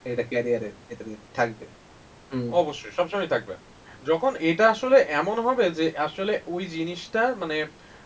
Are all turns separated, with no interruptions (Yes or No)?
Yes